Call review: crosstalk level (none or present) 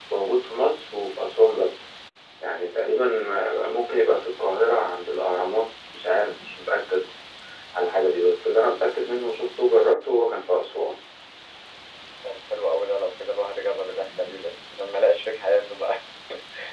none